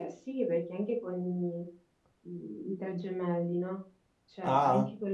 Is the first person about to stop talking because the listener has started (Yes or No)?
No